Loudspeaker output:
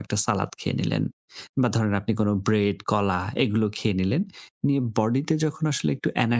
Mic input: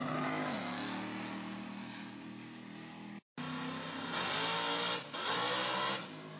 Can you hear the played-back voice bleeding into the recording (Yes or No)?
No